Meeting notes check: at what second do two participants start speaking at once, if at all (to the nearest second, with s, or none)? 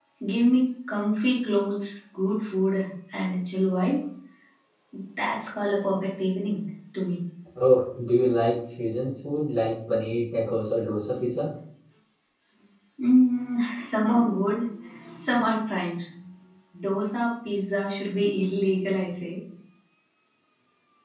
none